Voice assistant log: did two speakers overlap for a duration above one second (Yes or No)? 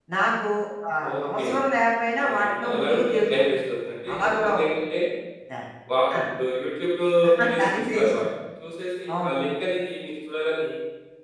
Yes